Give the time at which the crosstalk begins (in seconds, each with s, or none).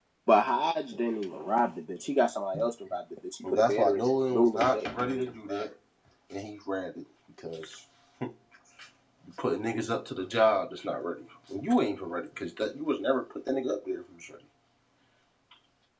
3.5 s